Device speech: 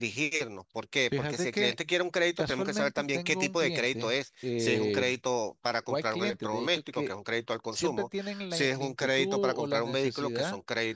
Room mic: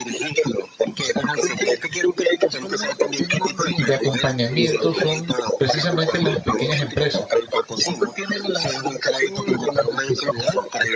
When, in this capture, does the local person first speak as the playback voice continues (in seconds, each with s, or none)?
3.8 s